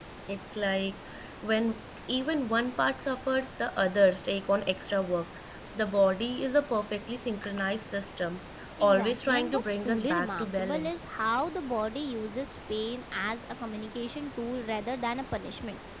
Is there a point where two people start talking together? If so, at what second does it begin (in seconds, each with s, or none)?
8.8 s